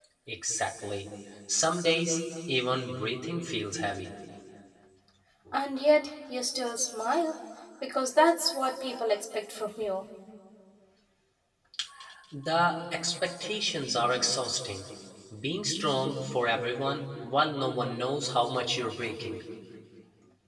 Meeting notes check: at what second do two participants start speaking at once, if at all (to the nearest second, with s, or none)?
none